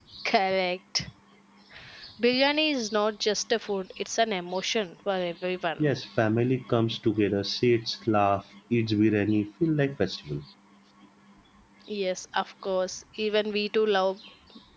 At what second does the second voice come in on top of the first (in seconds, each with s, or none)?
none